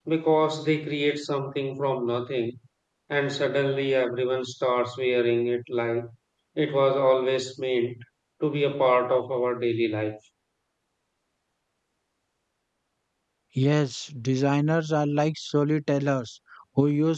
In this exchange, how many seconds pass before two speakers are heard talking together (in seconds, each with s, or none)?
none